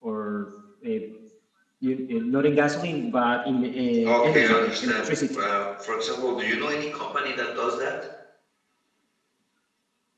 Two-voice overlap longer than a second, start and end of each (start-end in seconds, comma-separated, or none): 4.0-5.4